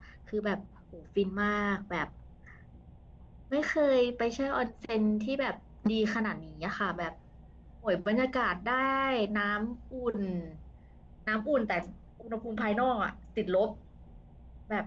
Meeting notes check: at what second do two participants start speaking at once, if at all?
none

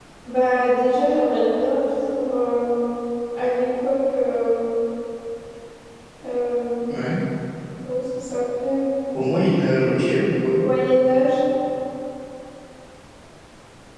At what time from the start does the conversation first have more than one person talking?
none

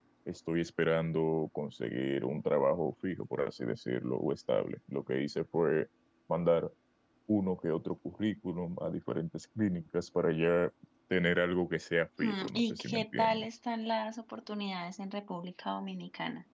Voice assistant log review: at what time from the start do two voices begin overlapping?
12.2 s

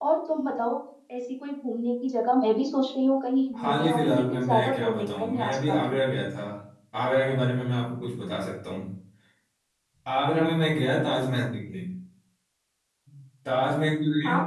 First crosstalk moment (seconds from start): 3.5 s

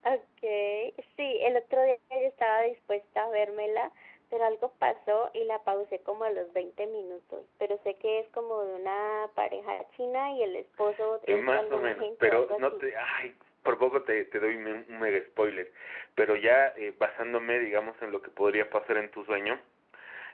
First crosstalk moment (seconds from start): 11.3 s

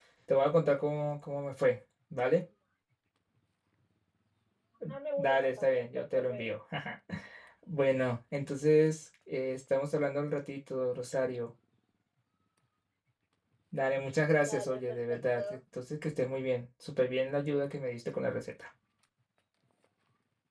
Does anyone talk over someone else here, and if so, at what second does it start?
5.2 s

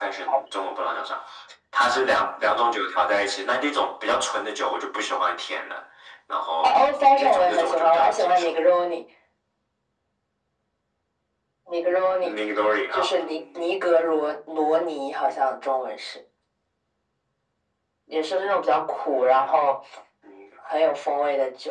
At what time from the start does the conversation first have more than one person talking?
6.6 s

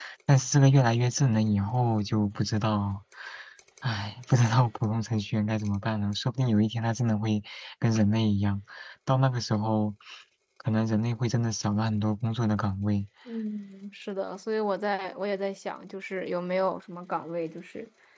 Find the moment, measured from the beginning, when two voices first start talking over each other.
none

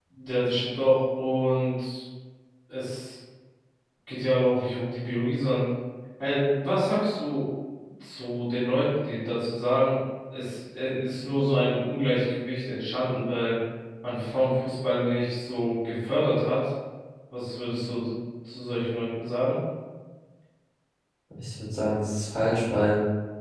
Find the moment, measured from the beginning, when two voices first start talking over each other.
none

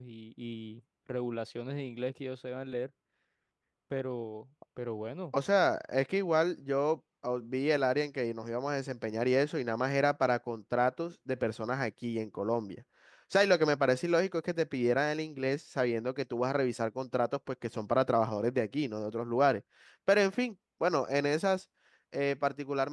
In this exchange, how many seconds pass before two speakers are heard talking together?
none

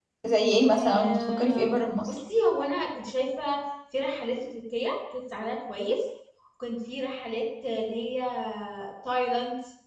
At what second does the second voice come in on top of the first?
0.7 s

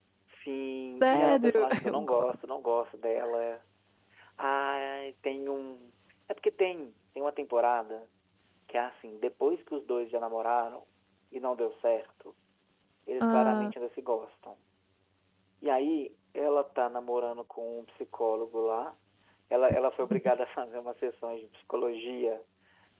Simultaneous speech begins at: 1.0 s

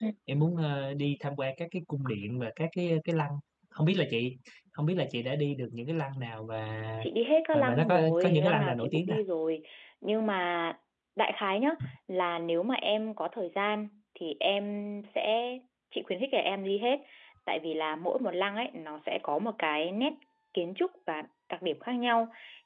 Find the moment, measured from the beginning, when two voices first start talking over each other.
7.5 s

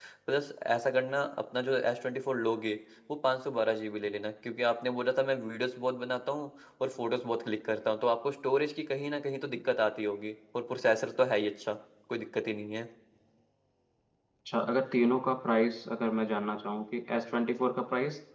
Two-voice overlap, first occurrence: none

